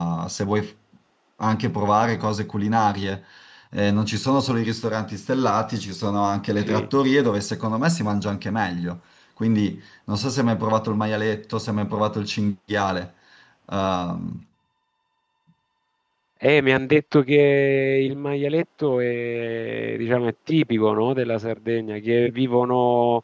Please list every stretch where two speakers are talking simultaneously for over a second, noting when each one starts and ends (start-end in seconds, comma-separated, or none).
none